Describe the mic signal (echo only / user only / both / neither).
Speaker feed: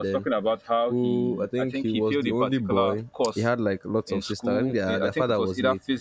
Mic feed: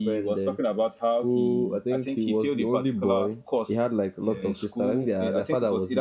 both